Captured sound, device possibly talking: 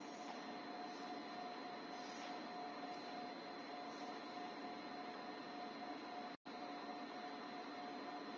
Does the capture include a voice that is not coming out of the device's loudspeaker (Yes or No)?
No